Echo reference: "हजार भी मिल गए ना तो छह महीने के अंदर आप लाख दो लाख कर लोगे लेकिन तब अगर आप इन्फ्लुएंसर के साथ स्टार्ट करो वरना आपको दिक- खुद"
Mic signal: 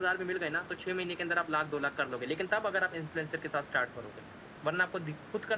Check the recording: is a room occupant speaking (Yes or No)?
No